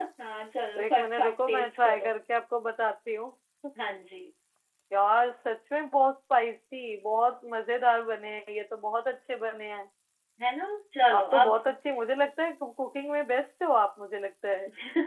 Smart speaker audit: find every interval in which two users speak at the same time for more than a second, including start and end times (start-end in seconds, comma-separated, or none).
0.8-2.1